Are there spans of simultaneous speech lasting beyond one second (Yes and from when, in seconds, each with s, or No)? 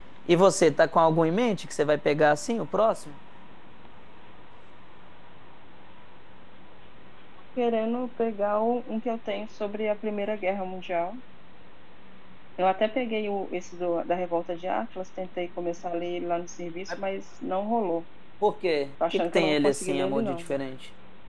Yes, from 19.1 s